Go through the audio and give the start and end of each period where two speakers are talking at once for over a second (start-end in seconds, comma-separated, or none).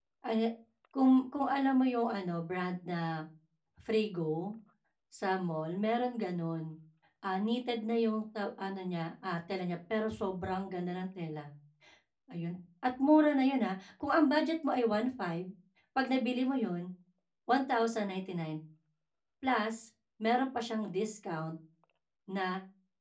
none